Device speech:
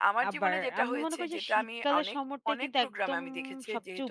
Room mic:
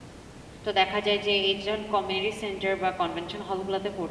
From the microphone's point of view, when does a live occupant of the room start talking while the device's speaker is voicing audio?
0.6 s

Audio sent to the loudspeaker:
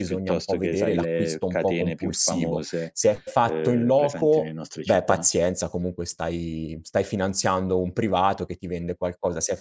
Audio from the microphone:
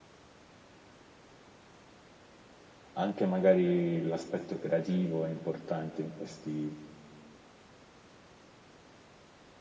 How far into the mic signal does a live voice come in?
2.9 s

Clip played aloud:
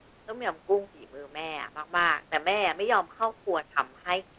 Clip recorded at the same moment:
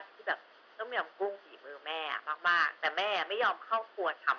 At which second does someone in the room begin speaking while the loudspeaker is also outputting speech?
none

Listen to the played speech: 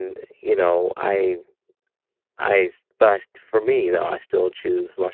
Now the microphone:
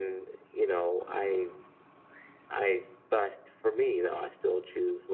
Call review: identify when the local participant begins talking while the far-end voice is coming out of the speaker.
none

